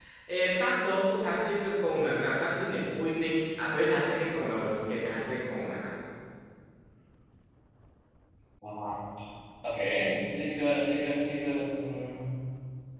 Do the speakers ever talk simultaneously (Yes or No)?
No